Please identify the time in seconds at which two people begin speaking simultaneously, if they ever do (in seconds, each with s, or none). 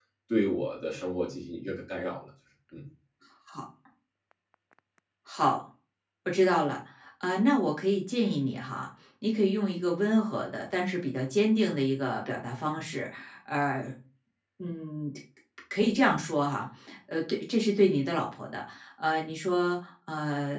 none